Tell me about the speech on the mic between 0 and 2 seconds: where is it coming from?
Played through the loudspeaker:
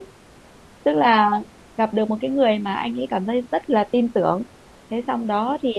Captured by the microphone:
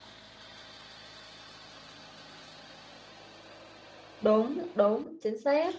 neither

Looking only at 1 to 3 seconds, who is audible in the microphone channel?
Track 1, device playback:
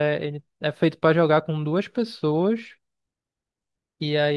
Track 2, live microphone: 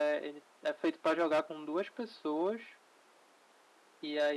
echo only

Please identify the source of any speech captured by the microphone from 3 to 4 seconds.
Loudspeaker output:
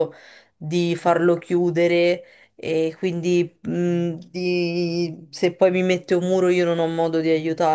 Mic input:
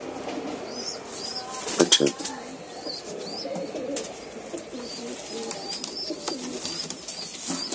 neither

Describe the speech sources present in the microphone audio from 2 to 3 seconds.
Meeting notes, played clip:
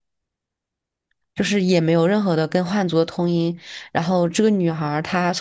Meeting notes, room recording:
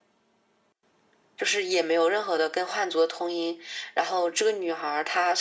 echo only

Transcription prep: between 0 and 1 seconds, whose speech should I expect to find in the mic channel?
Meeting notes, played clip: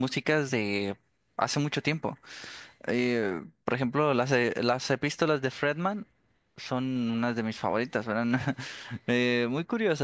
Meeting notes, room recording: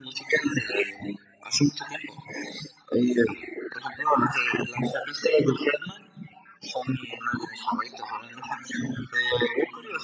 echo only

